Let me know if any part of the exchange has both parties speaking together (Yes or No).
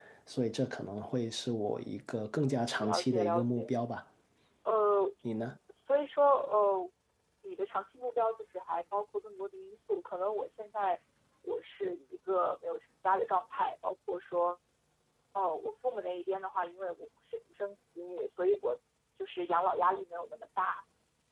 Yes